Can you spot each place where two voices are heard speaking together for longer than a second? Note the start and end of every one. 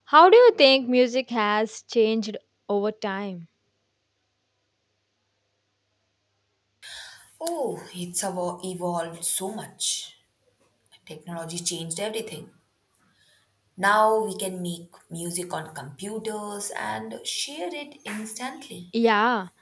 none

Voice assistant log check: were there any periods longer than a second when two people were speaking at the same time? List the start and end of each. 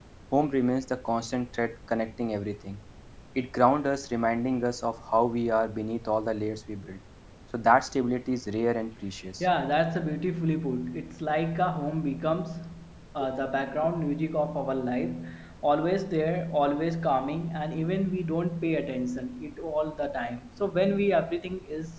none

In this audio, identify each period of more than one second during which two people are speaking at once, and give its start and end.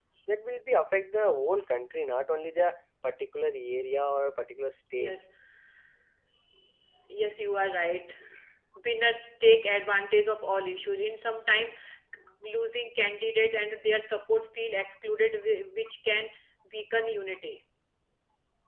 none

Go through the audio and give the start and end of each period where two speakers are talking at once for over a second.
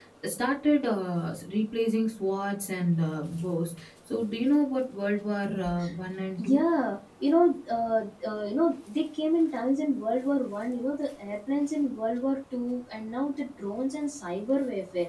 none

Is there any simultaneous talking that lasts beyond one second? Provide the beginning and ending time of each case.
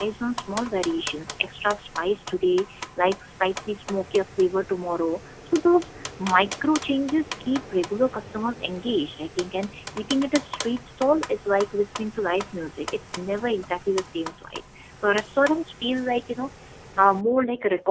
none

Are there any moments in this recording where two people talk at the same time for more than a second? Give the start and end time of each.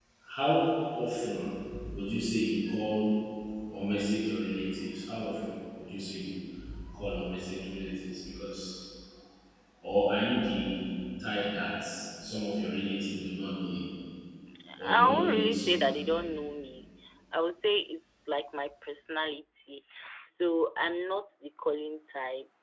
14.9-16.2

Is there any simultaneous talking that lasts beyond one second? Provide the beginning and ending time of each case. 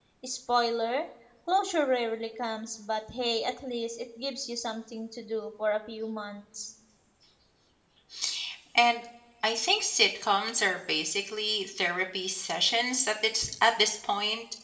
none

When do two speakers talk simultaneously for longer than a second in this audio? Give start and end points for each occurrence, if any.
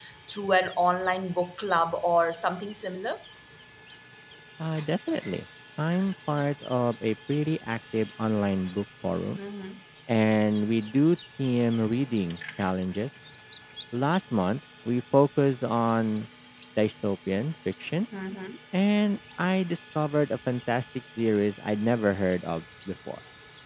none

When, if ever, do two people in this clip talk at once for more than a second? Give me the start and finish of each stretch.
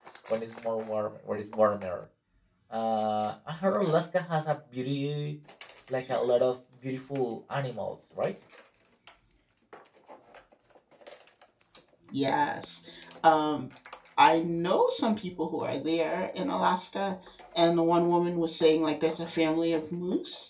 none

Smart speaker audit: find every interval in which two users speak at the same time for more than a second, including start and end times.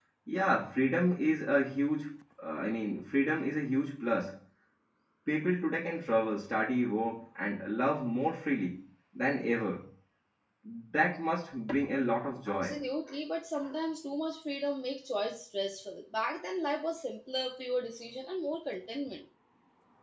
none

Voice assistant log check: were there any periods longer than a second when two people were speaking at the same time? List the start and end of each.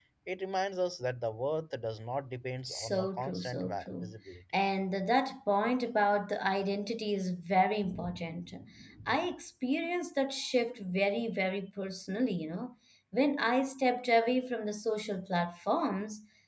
2.7-4.1

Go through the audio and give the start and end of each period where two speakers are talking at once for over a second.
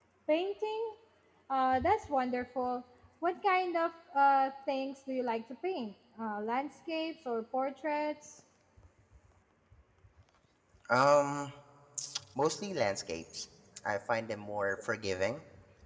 none

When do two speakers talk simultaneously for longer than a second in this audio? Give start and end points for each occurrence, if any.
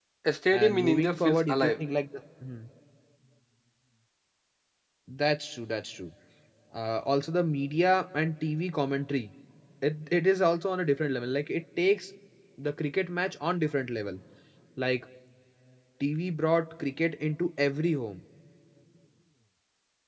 0.5-1.8

